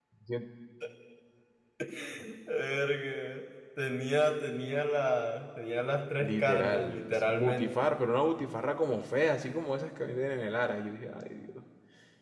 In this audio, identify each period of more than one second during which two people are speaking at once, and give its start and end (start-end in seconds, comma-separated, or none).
6.2-7.9